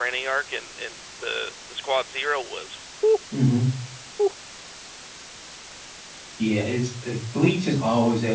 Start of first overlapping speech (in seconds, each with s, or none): none